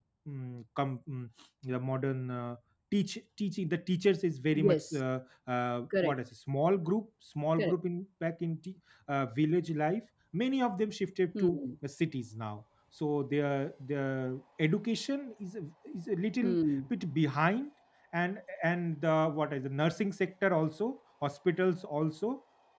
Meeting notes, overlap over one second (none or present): none